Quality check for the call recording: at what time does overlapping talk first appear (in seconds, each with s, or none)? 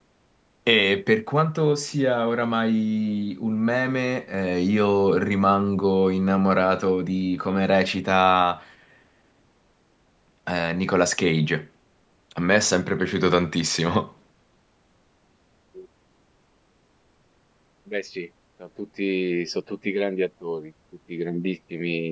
none